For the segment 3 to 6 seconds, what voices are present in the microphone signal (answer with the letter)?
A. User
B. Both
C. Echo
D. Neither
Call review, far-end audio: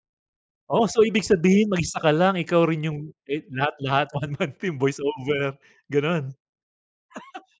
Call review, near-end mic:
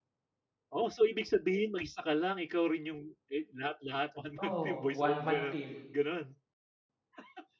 B